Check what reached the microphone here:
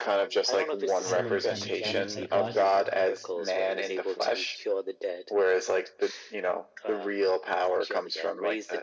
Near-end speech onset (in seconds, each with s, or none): 1.0 s